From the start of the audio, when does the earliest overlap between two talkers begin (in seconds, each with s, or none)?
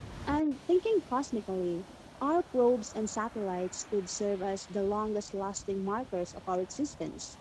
none